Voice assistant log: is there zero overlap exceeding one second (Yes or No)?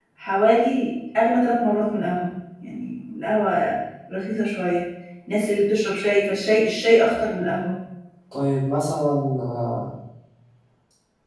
Yes